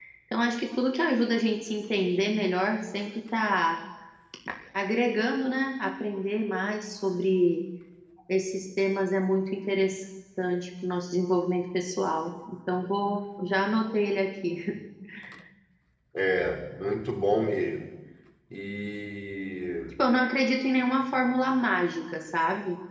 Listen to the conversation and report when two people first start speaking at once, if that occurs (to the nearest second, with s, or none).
none